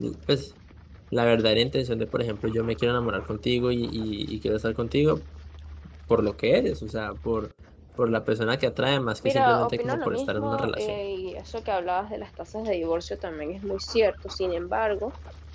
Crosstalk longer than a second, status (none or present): present